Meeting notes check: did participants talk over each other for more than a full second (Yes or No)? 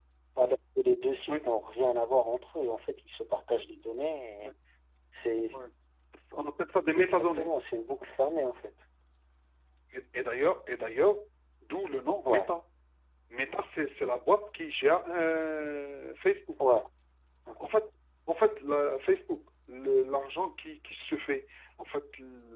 No